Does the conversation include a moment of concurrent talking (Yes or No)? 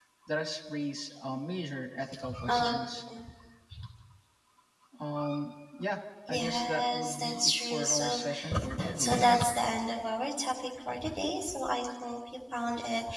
Yes